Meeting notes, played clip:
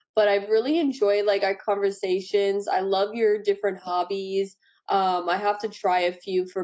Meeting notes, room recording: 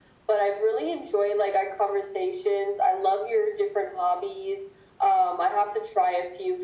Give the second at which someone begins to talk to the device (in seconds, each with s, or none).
none